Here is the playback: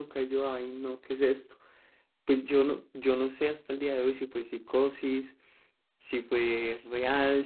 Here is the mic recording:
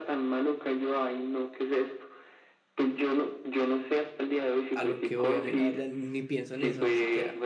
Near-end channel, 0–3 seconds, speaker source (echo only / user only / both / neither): echo only